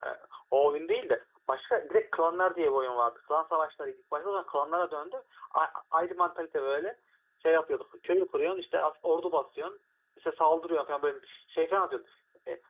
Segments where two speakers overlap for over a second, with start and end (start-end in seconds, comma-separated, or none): none